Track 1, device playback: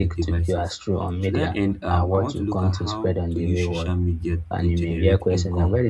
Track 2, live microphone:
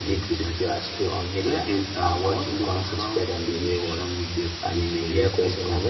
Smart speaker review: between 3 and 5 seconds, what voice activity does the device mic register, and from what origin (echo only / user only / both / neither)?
echo only